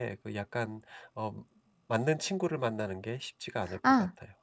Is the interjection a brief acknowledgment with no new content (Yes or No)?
No